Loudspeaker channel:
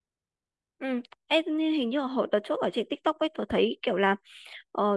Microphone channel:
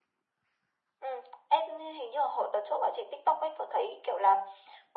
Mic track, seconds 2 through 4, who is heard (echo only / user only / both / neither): echo only